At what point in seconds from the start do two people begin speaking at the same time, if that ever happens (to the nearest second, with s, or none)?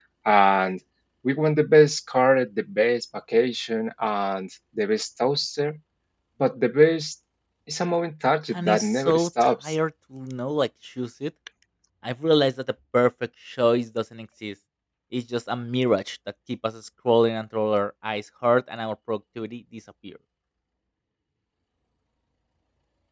9 s